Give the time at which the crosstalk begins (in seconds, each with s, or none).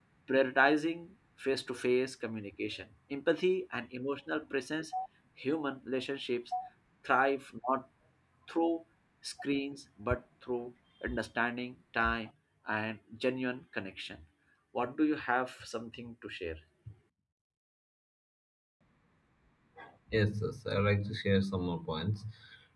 none